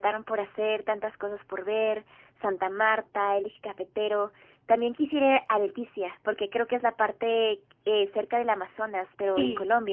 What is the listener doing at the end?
taking over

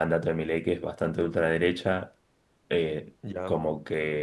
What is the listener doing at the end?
listening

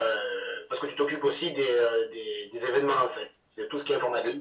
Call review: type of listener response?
taking over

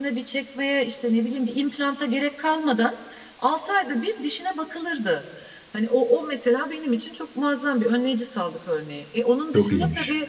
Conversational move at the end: listening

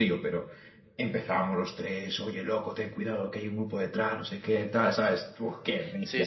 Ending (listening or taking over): taking over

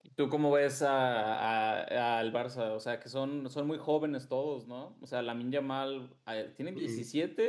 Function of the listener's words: listening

